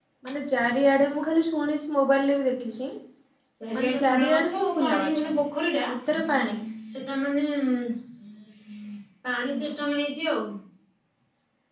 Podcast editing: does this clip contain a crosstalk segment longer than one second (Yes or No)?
Yes